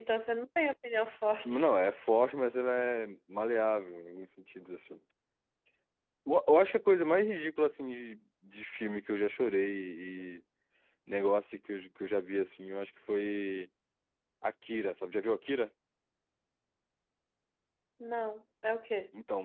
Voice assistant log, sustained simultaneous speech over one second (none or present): none